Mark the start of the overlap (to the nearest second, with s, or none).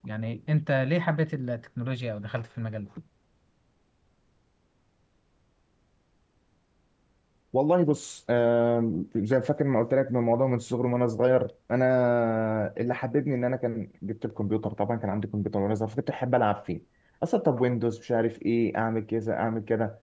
none